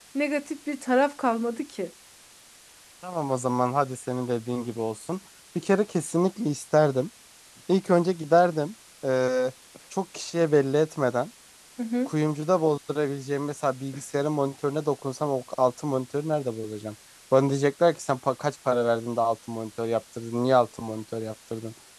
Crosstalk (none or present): none